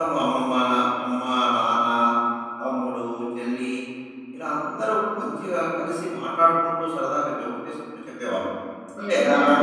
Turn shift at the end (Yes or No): Yes